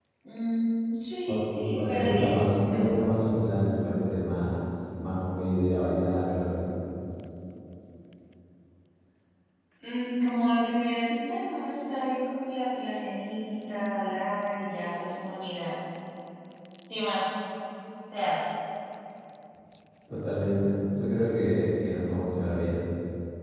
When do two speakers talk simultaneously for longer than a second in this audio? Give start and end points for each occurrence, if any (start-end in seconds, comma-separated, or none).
1.8-3.1